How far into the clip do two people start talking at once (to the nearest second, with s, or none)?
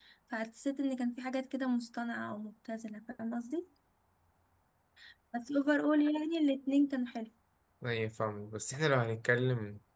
none